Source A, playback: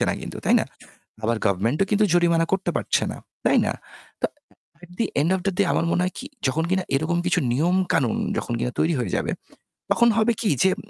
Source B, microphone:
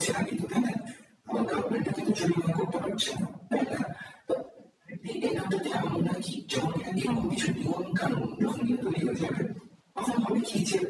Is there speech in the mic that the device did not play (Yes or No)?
Yes